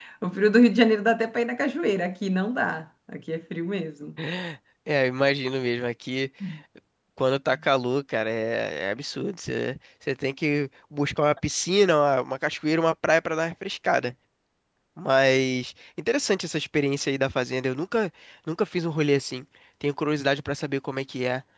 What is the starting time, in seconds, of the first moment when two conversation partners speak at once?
none

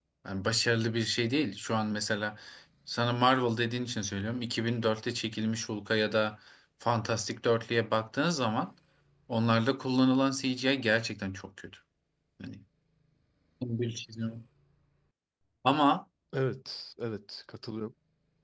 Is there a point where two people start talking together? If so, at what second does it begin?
none

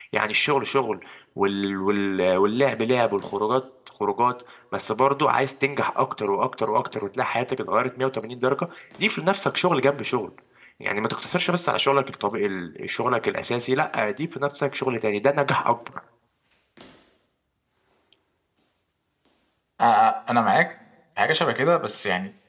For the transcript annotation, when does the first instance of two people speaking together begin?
none

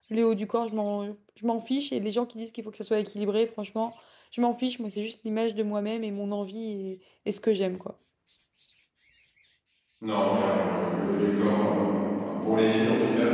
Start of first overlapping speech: none

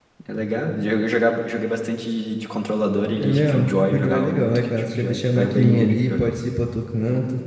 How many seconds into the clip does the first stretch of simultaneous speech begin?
3.2 s

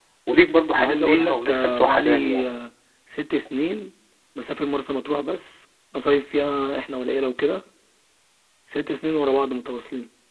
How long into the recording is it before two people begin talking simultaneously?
0.7 s

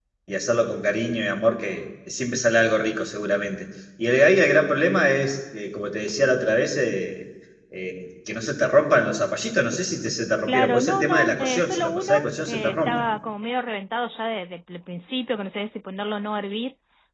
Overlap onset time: 10.4 s

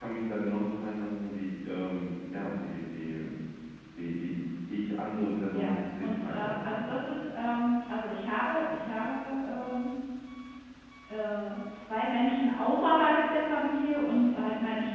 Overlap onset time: 5.5 s

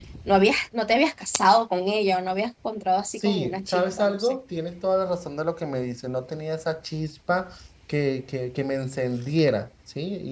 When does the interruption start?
3.1 s

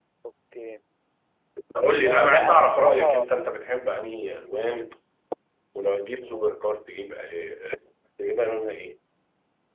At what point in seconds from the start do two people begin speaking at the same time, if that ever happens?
2.0 s

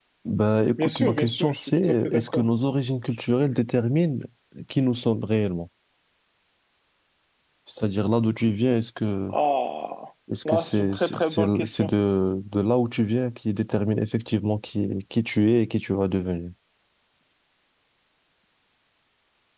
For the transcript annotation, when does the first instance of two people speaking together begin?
0.8 s

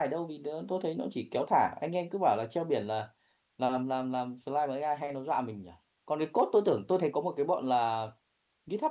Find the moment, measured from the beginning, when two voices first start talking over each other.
none

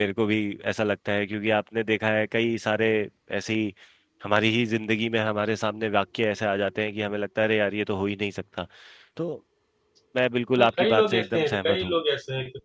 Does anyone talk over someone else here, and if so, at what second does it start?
10.6 s

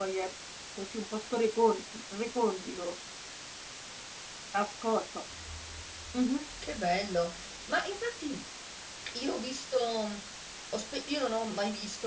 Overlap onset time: none

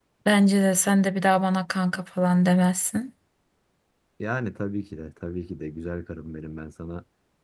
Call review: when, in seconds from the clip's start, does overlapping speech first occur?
none

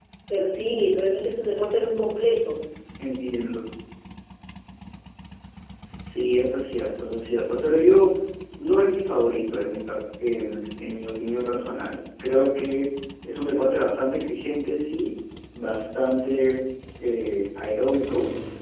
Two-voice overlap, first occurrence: none

